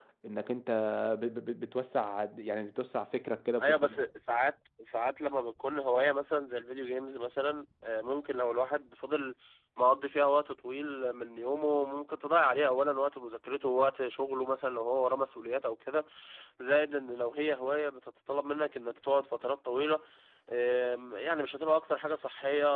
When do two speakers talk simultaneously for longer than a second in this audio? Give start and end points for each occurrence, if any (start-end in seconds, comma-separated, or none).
none